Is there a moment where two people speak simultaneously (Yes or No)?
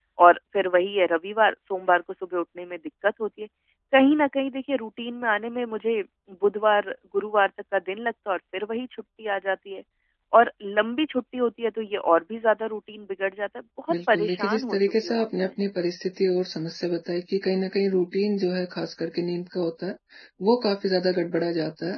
Yes